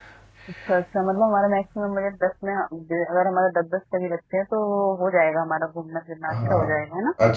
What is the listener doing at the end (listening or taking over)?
taking over